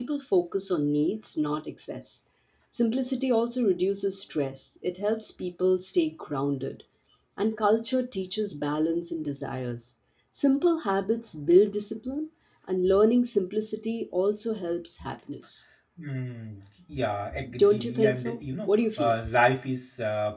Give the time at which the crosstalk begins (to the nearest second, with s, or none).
17 s